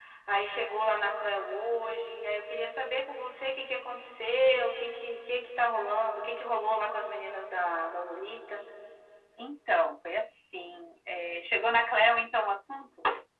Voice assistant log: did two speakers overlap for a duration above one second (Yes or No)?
No